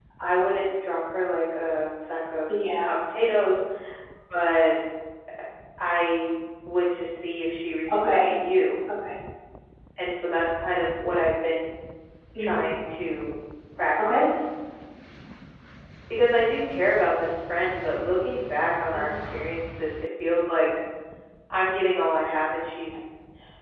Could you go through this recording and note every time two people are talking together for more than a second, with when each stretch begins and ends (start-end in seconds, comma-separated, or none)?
none